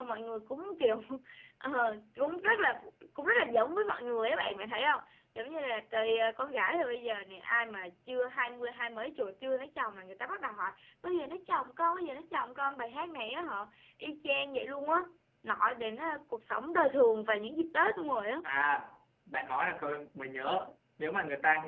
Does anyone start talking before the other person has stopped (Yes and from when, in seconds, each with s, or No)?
No